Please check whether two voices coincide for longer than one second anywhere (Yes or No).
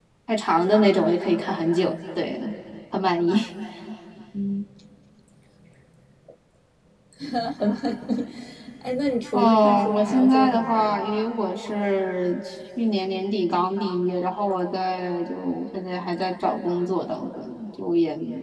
Yes